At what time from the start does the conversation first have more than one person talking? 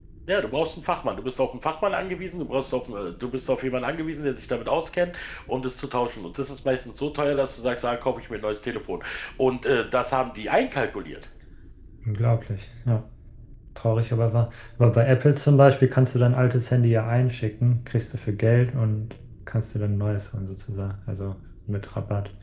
none

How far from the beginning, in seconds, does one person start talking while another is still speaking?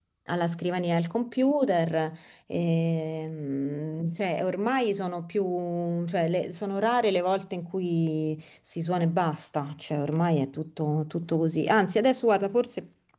none

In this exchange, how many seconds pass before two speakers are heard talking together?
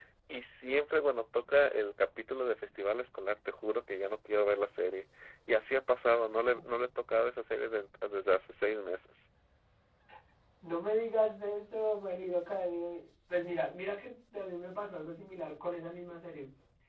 none

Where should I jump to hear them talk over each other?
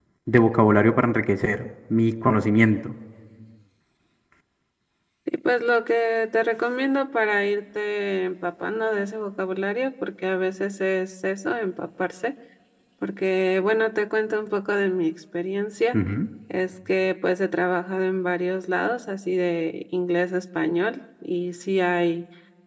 none

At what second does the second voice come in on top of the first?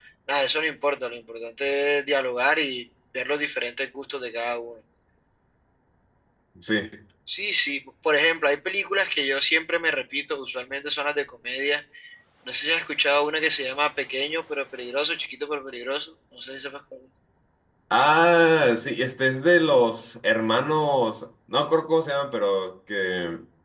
none

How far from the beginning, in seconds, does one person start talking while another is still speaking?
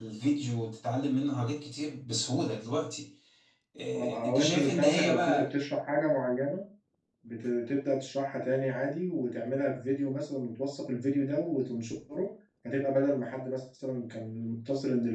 3.9 s

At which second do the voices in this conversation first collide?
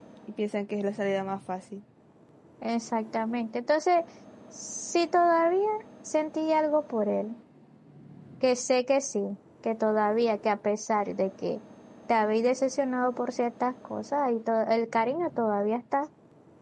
none

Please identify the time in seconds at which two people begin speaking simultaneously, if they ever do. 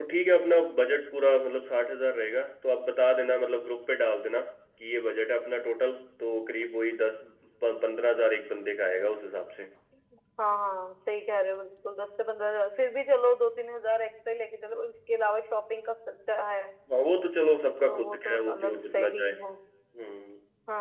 17.9 s

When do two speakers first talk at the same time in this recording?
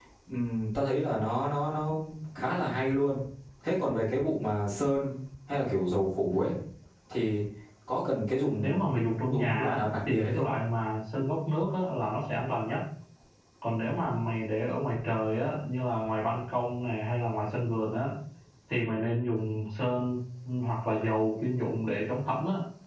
8.6 s

